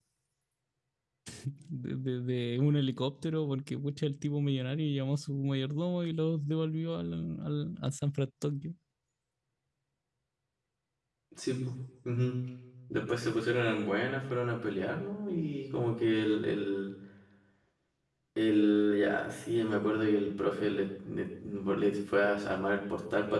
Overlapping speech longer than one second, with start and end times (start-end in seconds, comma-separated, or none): none